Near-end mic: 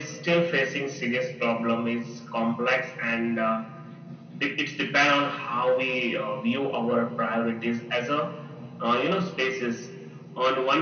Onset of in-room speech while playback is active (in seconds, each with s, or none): none